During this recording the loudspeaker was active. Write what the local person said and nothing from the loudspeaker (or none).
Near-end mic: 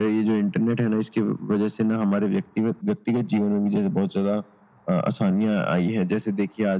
none